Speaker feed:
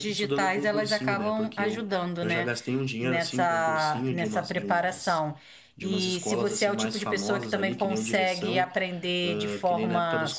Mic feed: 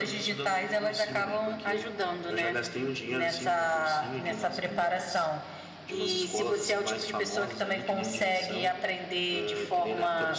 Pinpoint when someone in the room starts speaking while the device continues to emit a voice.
none

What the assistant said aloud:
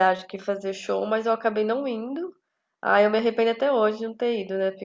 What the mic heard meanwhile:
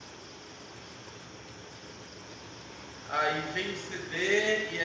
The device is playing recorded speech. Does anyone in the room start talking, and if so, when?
3.0 s

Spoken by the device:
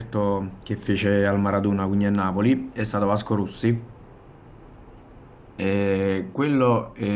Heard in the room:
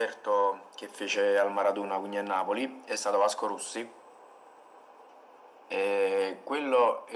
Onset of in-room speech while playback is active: none

